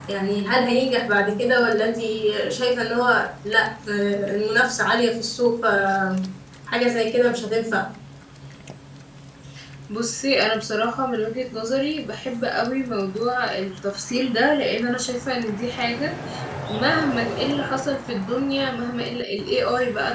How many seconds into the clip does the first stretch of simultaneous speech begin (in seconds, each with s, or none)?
none